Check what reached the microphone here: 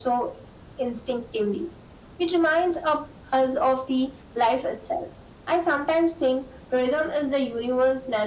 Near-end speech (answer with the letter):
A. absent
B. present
A